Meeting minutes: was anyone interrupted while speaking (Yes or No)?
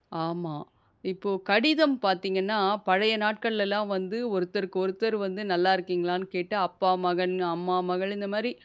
No